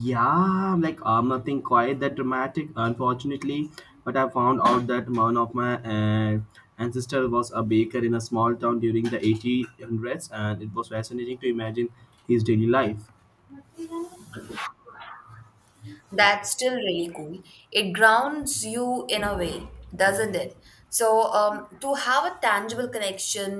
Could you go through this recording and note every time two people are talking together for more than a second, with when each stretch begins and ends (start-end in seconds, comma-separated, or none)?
none